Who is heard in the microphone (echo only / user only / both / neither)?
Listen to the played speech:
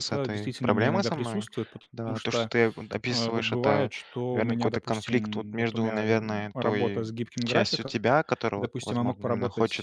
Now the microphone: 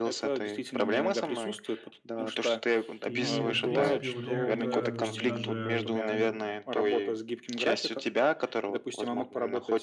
both